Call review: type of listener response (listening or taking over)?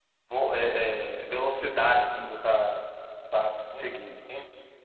taking over